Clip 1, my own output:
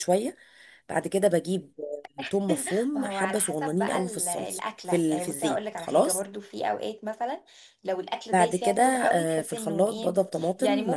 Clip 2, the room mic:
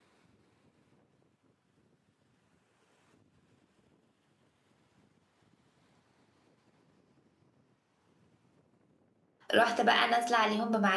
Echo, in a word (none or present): none